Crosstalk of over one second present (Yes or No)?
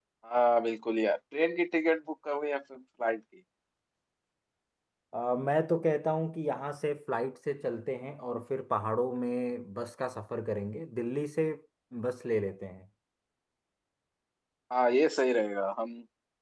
No